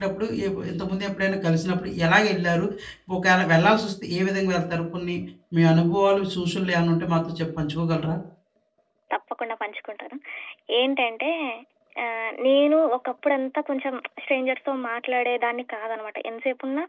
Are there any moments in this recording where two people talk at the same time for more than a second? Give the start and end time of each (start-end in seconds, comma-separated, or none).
none